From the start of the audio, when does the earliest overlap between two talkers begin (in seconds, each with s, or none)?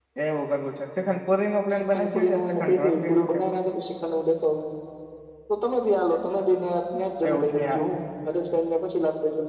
1.7 s